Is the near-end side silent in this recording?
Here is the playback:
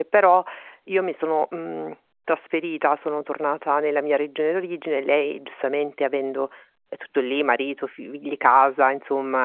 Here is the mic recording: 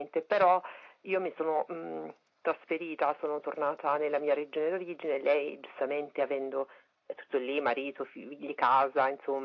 Yes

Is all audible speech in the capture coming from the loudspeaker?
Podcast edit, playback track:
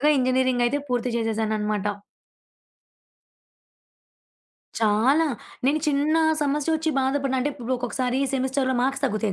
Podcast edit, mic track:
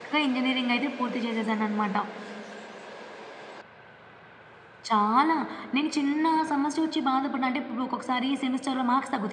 Yes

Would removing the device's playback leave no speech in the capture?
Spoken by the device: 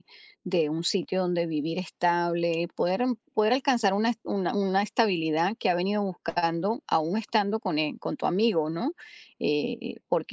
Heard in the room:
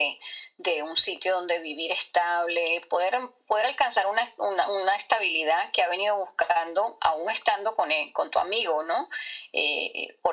Yes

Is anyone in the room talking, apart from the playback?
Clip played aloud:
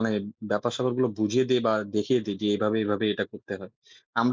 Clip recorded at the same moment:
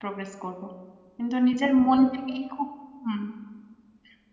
Yes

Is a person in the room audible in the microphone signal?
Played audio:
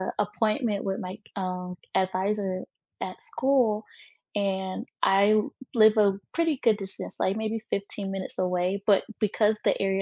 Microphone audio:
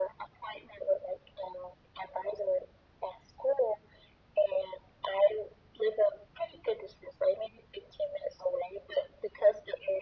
No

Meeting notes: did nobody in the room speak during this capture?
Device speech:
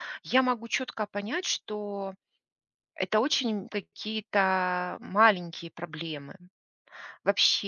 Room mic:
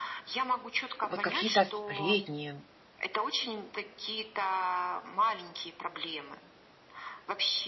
No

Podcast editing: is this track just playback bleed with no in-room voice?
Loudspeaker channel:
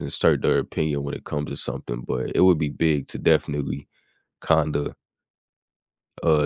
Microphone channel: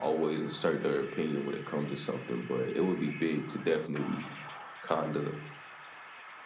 Yes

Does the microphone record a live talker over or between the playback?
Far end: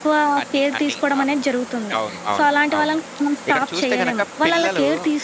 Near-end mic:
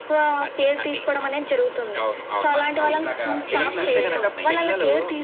Yes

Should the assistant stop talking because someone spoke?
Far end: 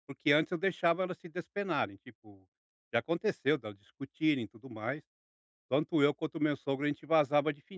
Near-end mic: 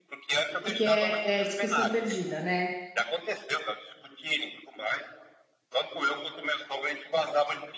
Yes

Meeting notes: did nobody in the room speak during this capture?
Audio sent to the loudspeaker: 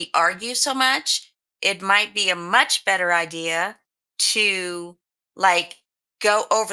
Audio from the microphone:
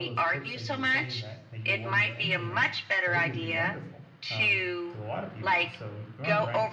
No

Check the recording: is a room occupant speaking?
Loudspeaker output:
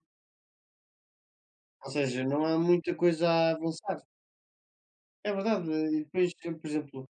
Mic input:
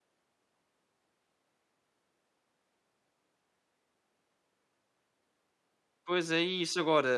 Yes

